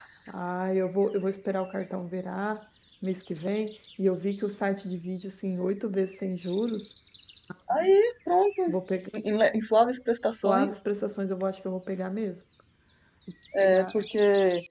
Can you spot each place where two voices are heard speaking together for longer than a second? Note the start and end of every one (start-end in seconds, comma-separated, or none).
none